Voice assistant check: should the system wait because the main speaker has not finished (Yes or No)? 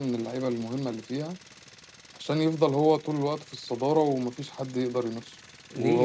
No